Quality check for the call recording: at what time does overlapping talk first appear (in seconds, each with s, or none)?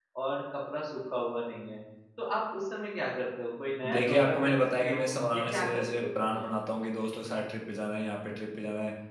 3.8 s